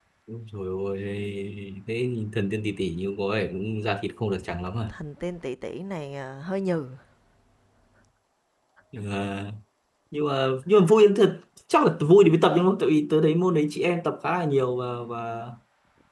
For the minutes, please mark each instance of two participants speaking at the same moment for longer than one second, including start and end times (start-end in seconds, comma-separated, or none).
none